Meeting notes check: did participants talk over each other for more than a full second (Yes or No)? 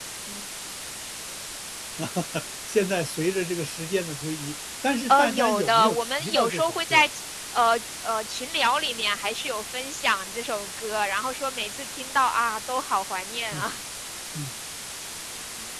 Yes